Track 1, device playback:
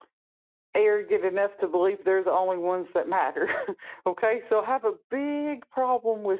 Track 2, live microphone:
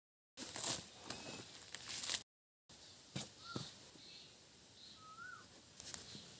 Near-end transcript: none

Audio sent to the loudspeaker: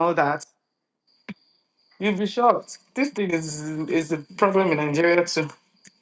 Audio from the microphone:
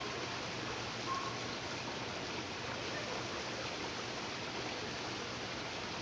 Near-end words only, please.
none

